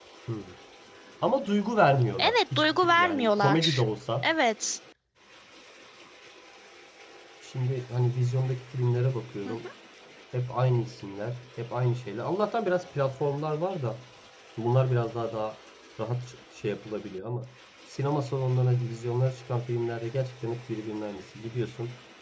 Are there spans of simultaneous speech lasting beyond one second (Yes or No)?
Yes